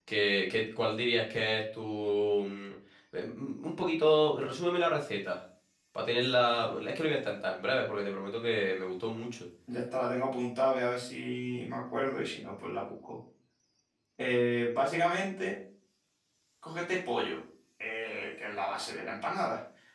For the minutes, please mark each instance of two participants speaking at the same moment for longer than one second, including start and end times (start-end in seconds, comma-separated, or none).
none